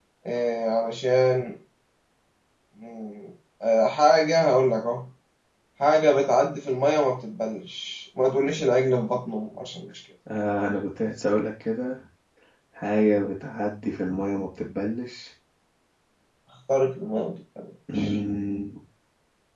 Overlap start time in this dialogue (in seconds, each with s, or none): none